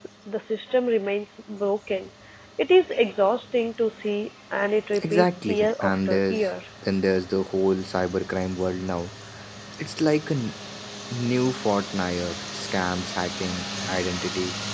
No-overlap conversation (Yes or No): No